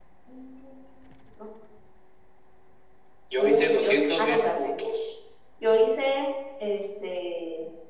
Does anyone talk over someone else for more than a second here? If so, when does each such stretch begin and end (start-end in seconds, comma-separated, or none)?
3.4-4.7